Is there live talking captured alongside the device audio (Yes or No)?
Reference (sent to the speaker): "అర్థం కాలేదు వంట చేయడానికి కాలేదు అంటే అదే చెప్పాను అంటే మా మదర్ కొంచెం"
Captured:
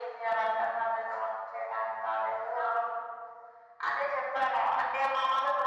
No